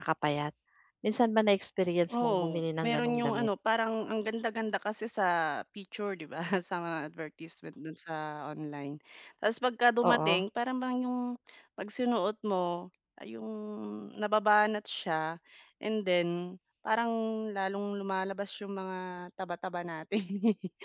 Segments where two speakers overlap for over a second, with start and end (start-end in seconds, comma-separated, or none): 2.1-3.5